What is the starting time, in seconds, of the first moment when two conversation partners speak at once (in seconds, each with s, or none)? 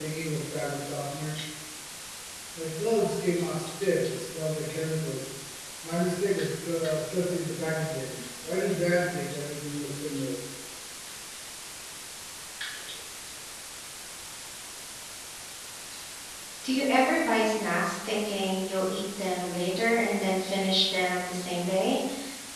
none